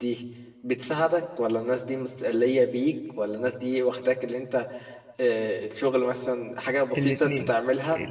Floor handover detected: Yes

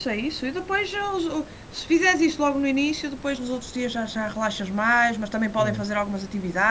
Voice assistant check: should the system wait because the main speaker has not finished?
Yes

